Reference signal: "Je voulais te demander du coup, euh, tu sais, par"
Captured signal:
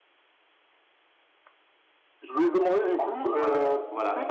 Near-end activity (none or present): present